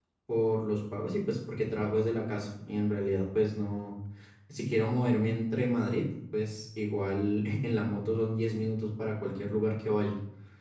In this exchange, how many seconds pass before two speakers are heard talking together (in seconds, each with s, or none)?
none